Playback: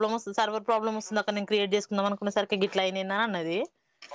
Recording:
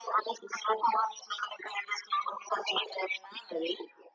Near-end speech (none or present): none